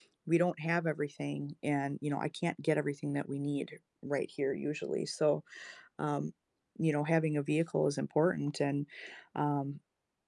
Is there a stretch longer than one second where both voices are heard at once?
No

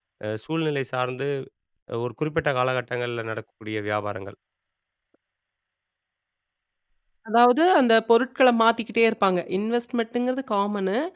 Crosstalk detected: No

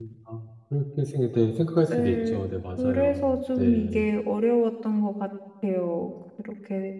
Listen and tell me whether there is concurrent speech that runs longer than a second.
Yes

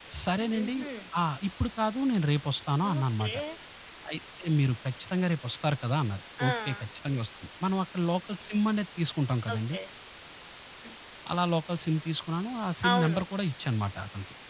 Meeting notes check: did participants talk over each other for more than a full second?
No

